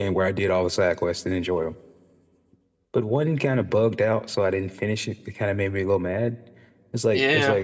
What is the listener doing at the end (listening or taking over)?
listening